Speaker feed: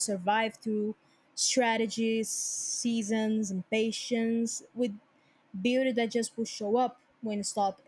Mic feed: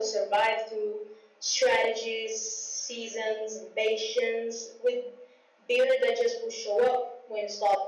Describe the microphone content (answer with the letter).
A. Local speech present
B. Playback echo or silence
B